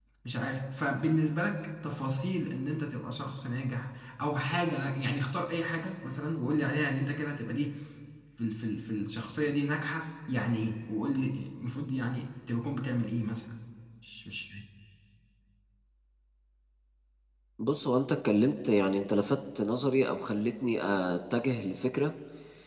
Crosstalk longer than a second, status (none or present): none